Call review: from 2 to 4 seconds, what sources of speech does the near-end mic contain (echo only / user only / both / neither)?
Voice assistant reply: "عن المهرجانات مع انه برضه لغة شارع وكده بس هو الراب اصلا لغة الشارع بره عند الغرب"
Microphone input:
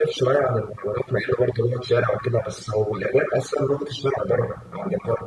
echo only